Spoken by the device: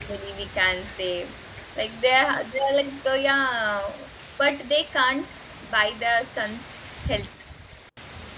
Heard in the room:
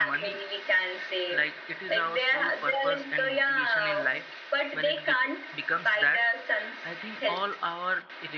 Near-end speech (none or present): present